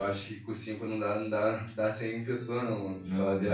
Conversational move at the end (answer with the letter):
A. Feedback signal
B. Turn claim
B